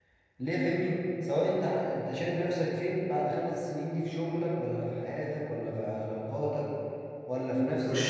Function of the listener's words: taking over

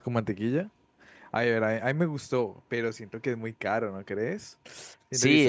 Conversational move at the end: taking over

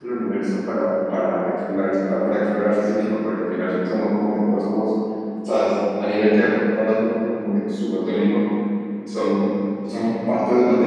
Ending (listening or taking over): listening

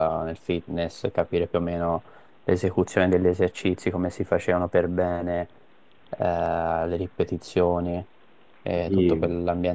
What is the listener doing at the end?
listening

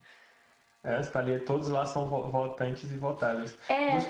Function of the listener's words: listening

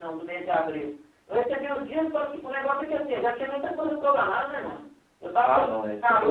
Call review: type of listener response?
taking over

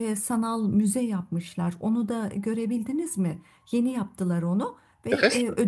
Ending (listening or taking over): listening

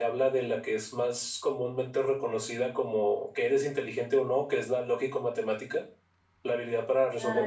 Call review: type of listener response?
listening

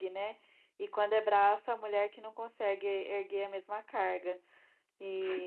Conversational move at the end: listening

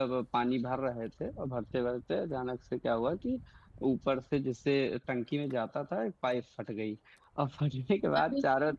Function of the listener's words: listening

